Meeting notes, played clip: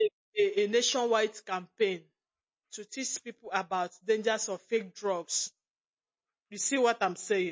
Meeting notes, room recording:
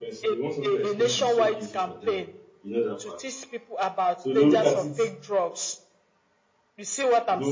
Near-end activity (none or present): present